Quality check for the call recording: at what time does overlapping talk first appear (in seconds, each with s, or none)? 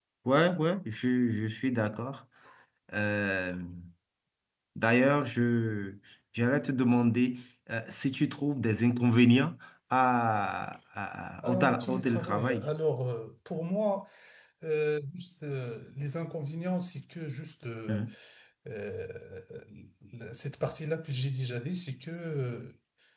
11.4 s